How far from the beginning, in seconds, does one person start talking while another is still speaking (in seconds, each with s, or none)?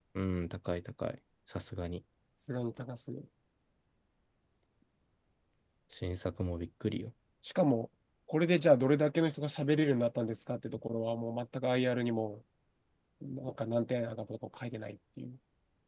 none